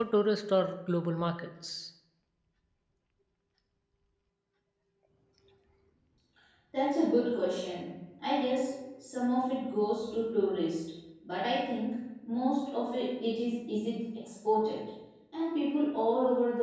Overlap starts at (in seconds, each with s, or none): none